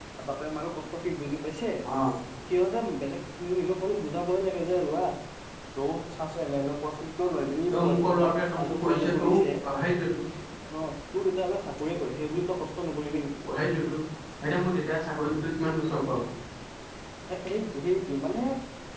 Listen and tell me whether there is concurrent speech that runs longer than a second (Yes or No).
Yes